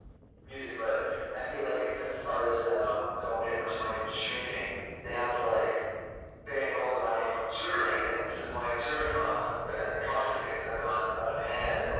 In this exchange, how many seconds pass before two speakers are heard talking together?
none

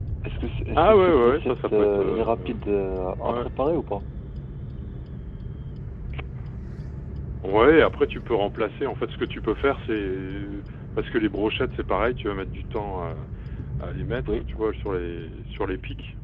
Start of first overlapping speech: 0.7 s

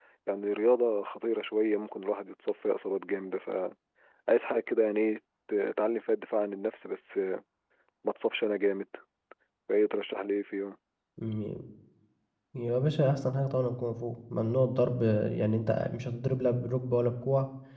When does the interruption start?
none

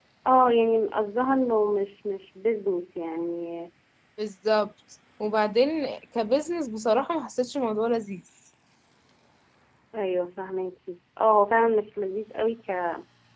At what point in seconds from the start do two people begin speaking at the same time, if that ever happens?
none

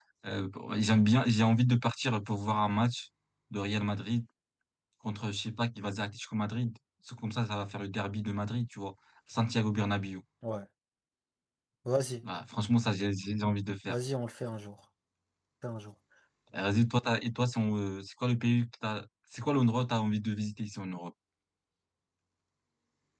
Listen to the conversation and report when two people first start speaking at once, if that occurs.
none

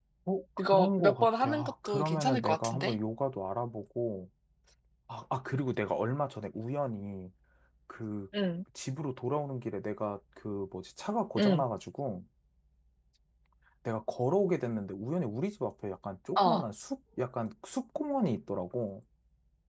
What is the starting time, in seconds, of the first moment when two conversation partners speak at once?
0.7 s

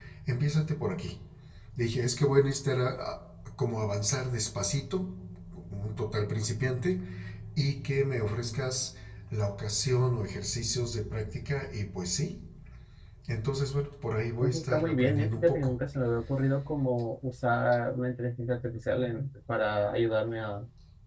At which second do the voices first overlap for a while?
14.4 s

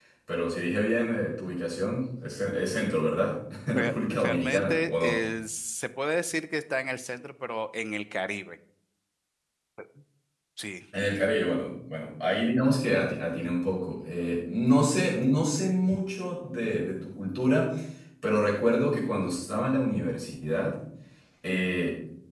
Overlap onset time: 3.7 s

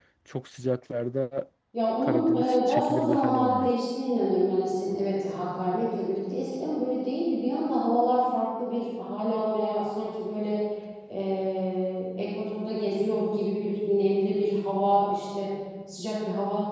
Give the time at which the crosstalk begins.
2.0 s

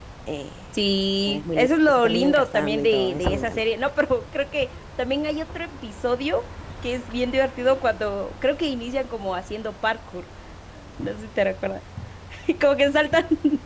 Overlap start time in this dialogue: 1.2 s

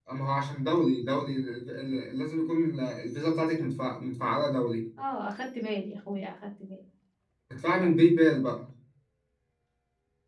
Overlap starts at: none

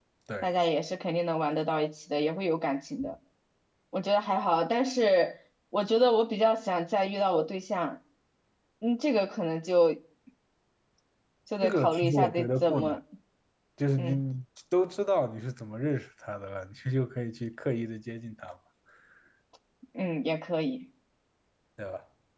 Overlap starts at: 11.6 s

